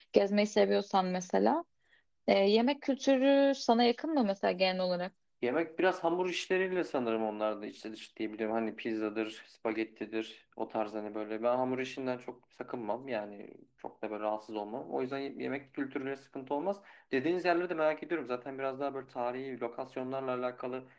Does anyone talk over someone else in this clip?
No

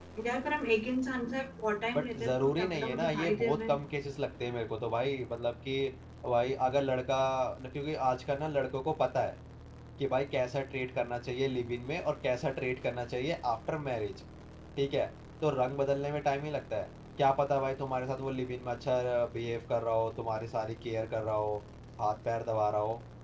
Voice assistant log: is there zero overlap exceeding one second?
No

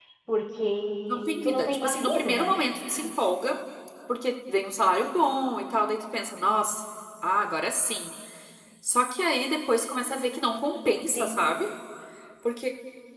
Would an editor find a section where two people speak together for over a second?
Yes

